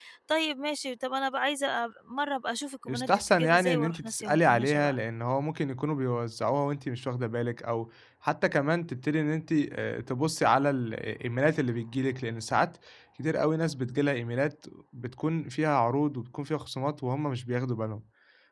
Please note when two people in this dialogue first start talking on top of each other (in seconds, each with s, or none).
2.9 s